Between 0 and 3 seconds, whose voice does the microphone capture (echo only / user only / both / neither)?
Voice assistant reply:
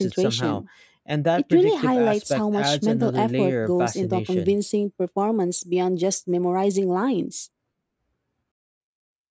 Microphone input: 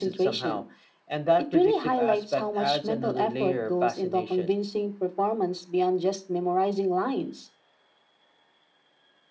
echo only